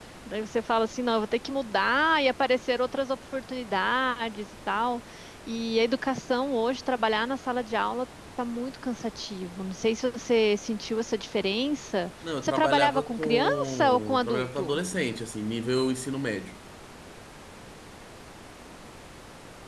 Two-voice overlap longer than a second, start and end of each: 12.4-14.8

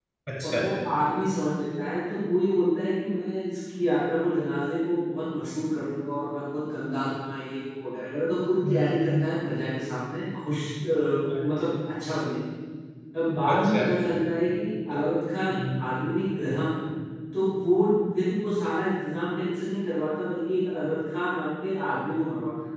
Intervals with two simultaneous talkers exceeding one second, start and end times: none

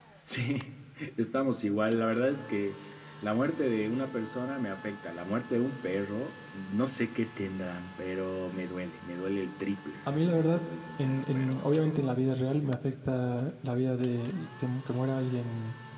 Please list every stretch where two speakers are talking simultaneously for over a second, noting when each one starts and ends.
10.1-11.6

